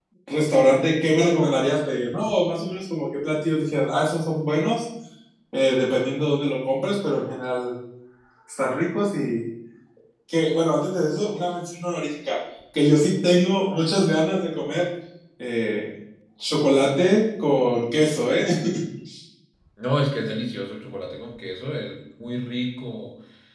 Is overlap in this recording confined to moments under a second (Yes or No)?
Yes